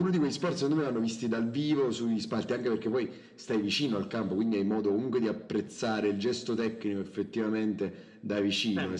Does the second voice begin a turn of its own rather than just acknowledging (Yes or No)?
No